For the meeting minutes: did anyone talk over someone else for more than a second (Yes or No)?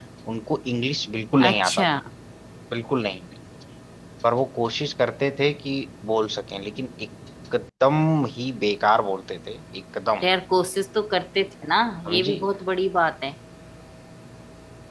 No